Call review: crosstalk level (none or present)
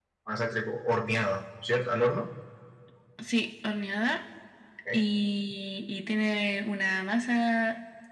none